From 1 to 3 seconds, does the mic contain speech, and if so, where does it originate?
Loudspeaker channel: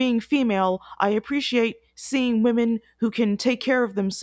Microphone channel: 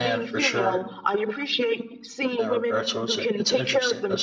both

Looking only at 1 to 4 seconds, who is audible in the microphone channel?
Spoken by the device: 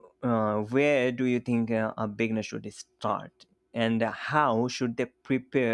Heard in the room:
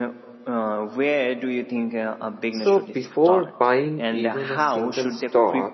both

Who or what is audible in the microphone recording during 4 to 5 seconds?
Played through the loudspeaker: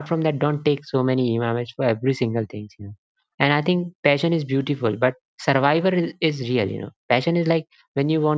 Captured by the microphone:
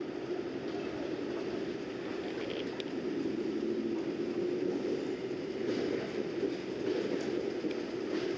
neither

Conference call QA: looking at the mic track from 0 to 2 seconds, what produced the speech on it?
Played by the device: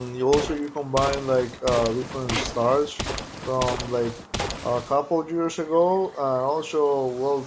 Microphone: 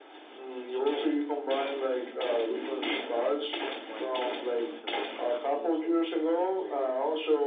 echo only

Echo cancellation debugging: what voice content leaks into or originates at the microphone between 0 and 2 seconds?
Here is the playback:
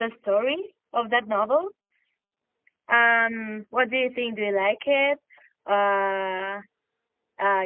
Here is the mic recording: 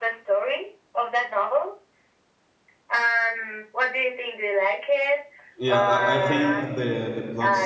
echo only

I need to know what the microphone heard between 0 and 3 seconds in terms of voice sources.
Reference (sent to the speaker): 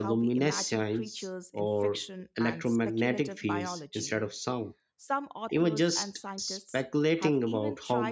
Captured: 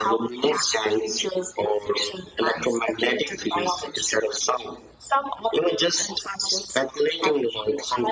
echo only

